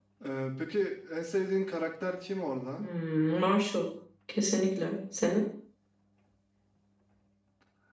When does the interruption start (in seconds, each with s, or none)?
none